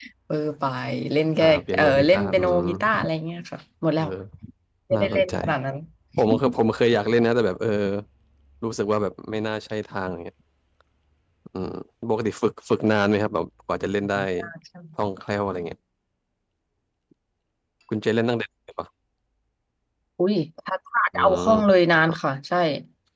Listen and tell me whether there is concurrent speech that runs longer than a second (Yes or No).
Yes